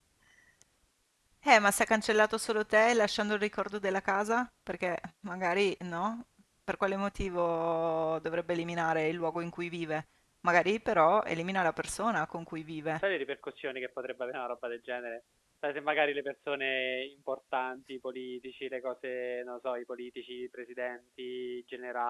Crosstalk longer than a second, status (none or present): none